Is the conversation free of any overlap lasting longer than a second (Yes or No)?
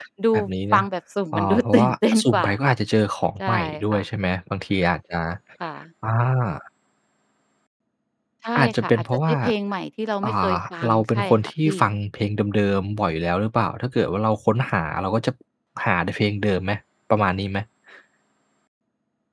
No